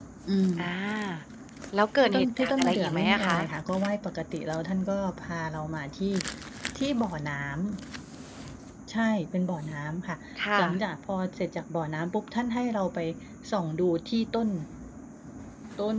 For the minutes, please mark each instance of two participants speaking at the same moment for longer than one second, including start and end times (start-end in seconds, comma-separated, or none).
2.0-3.5